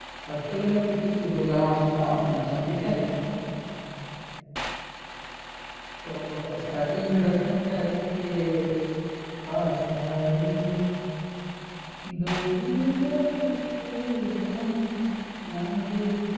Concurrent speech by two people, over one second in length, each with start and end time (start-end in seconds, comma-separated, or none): 1.5-2.9